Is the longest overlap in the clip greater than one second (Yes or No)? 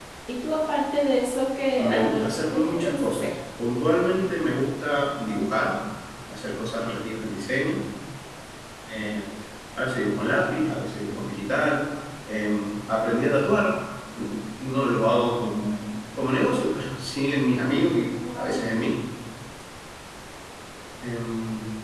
Yes